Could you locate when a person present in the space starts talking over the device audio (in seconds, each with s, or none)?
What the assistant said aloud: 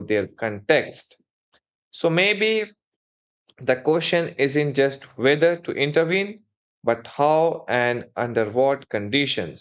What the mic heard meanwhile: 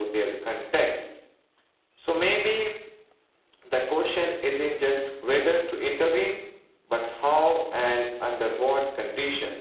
none